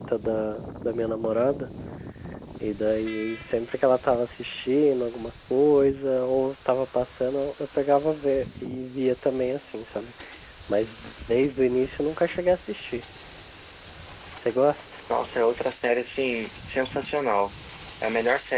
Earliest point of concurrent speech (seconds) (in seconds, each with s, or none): none